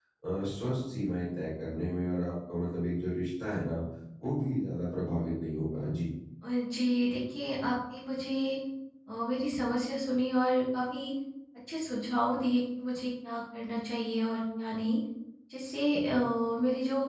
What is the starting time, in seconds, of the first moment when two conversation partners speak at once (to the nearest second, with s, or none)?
none